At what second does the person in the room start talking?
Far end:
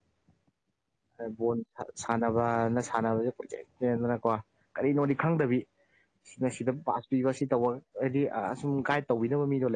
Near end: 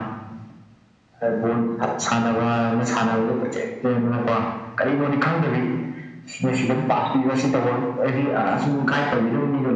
none

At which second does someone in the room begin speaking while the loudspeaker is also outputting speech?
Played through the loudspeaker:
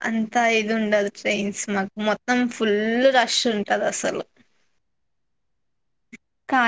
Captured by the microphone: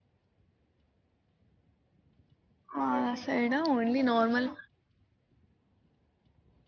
3 s

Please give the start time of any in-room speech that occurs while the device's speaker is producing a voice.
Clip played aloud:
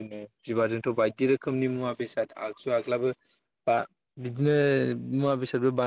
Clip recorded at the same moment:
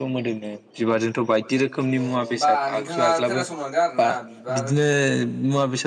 2 s

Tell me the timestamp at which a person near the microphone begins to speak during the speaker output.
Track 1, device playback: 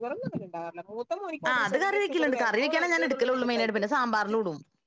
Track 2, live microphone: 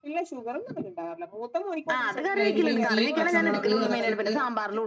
2 s

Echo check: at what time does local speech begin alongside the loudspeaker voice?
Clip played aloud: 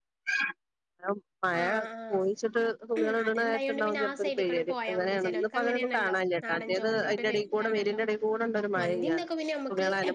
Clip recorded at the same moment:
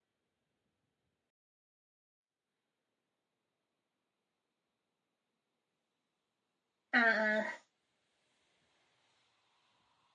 7 s

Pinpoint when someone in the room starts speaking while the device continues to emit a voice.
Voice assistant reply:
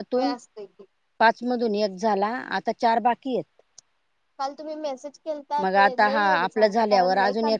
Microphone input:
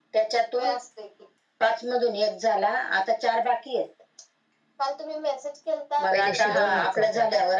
6 s

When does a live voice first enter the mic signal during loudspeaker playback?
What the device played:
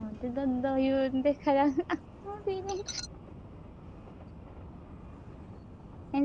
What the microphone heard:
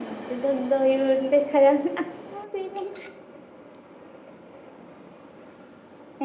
none

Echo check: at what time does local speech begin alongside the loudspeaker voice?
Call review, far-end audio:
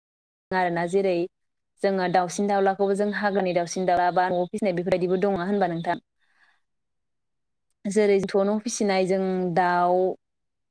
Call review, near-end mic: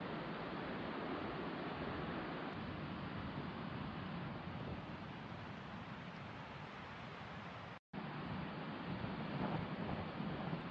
none

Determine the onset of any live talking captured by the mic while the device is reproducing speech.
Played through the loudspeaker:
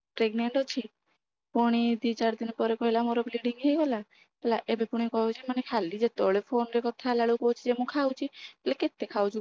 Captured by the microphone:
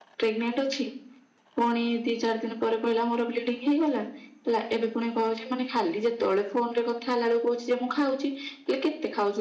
none

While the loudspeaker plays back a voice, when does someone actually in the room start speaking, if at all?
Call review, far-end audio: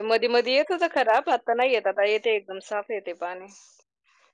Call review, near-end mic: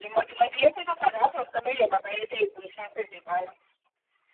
none

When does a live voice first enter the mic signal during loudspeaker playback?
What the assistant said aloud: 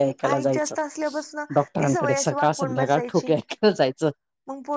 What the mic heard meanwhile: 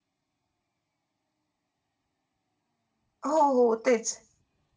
3 s

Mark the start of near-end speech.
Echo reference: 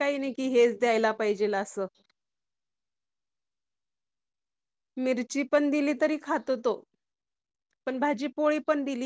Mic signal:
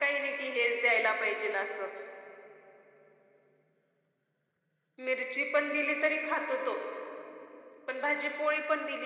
none

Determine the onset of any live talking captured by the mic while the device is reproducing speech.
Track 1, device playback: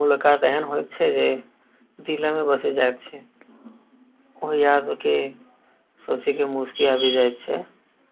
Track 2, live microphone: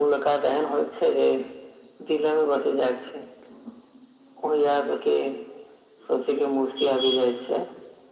none

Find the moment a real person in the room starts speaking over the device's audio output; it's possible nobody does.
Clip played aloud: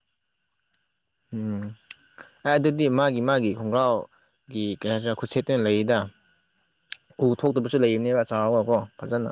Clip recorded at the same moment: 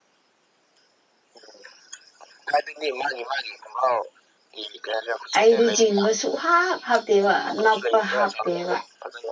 5 s

